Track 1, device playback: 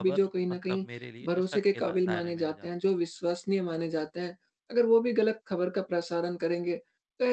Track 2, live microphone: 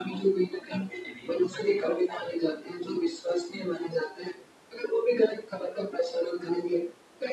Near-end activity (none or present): none